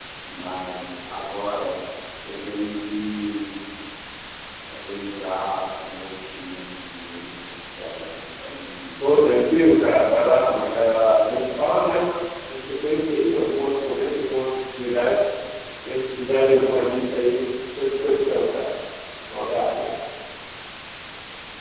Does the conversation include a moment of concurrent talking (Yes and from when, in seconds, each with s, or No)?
Yes, from 9.7 s